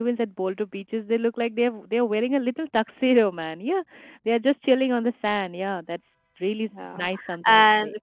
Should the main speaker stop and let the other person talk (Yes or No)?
Yes